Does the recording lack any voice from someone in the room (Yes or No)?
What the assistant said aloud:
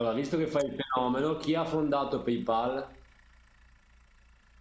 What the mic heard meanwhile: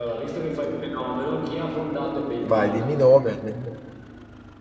No